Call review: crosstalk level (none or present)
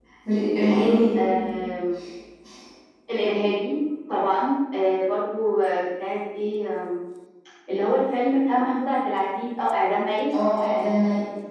none